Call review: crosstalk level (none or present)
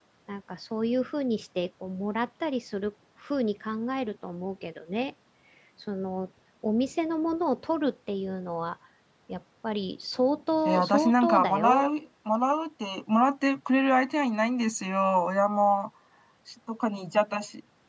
present